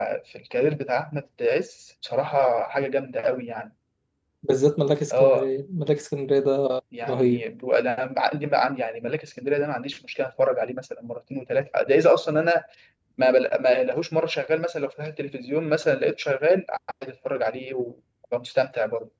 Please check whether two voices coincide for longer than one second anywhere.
No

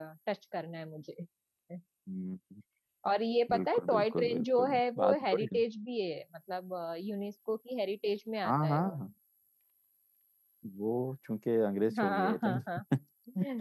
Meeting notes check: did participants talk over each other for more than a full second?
Yes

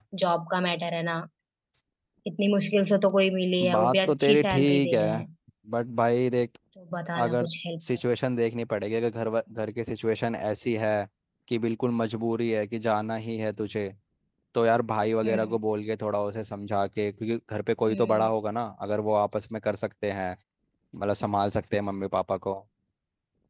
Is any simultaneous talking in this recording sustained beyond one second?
Yes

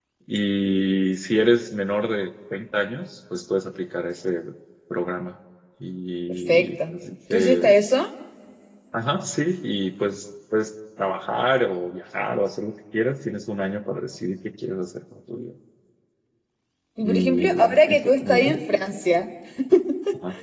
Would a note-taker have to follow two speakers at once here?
Yes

